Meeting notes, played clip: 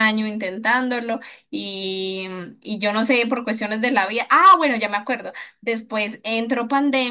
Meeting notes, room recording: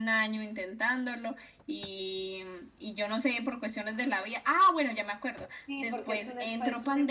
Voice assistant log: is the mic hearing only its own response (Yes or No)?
No